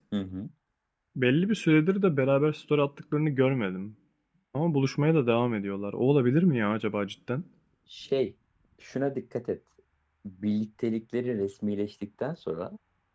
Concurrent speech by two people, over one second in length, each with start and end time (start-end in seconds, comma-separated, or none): none